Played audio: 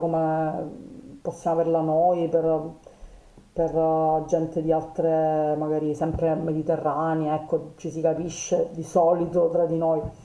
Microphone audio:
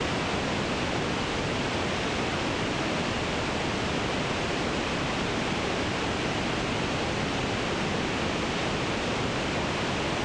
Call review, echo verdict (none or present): none